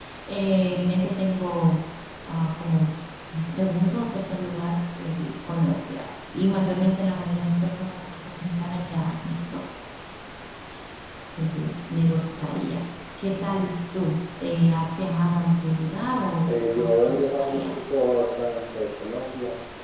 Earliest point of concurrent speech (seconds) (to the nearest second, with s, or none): 16 s